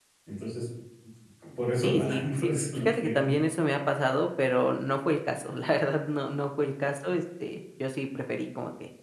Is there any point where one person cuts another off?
Yes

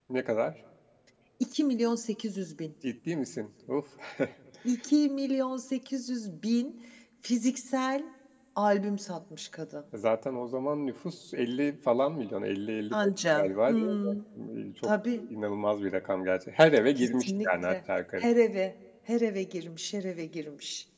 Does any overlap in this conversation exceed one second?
Yes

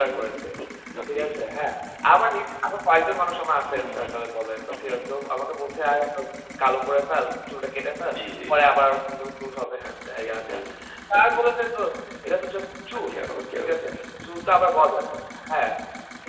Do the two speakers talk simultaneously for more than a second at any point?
No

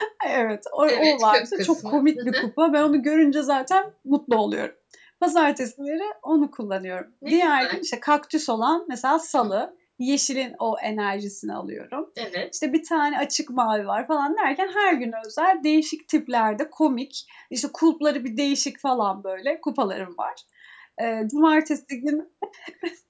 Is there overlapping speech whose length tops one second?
Yes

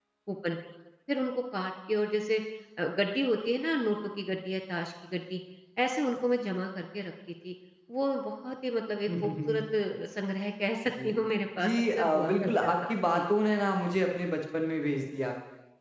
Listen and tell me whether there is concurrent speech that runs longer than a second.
Yes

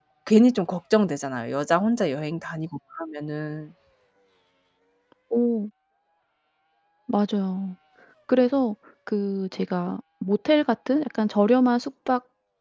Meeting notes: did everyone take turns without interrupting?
Yes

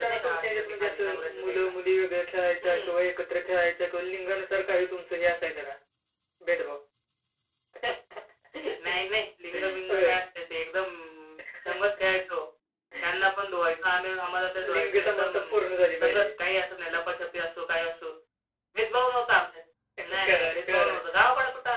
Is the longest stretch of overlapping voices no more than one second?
No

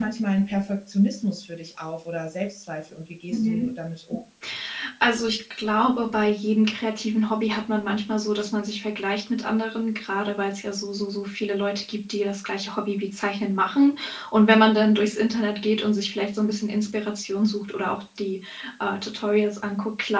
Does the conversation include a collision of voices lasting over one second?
No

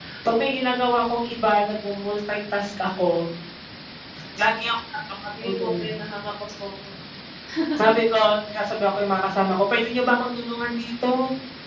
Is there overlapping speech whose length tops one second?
No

